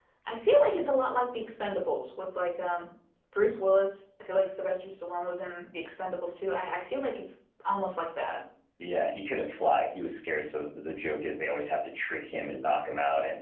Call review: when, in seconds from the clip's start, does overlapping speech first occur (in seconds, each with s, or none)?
none